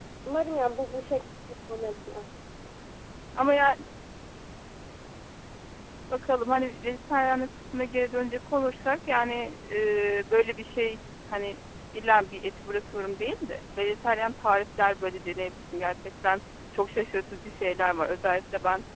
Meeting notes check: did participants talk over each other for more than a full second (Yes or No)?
No